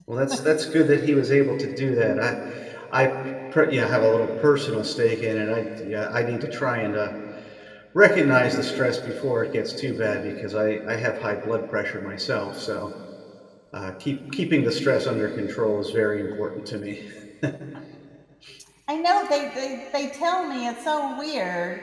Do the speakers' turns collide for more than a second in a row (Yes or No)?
No